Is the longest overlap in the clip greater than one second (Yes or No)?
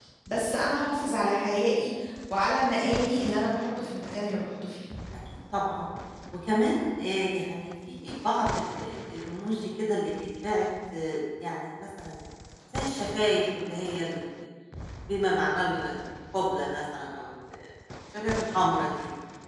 No